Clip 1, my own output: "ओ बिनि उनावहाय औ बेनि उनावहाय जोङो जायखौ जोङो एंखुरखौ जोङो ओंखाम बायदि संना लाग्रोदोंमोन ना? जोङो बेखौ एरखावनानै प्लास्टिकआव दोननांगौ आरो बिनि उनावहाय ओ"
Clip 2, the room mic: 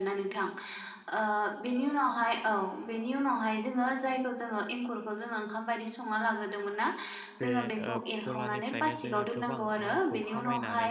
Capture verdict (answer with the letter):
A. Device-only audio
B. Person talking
B